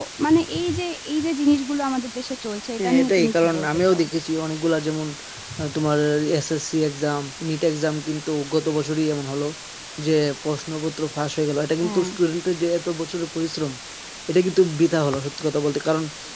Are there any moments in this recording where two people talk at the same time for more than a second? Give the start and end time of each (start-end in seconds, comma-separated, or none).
2.8-4.0